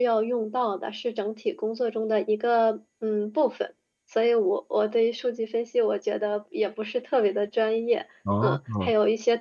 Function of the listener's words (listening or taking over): listening